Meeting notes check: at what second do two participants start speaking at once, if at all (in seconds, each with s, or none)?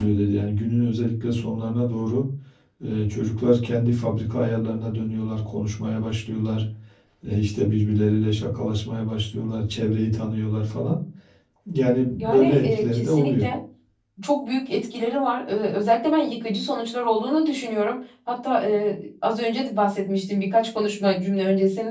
12.2 s